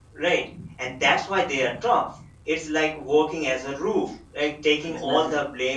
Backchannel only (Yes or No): Yes